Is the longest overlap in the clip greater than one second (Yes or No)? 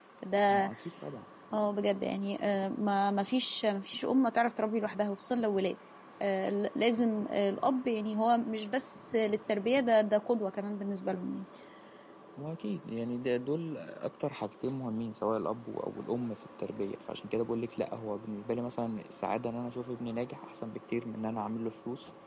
No